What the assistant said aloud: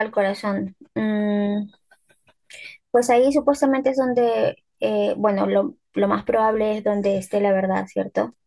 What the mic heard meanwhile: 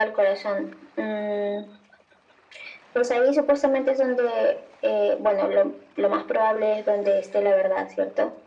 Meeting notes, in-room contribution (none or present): none